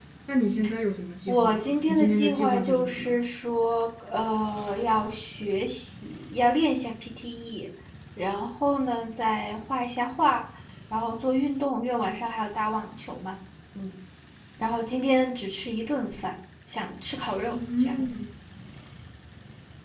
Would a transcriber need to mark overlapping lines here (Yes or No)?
Yes